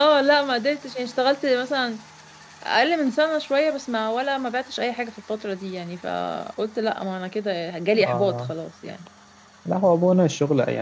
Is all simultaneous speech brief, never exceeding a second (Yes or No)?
Yes